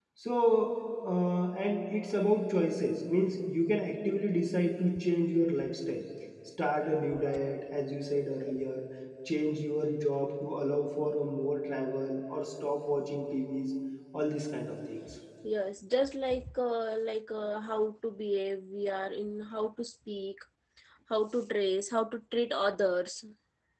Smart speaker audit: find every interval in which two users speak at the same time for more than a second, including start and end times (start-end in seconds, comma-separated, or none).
none